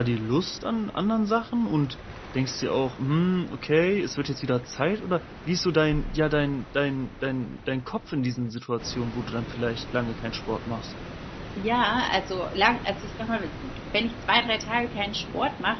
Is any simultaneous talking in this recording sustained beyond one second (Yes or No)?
No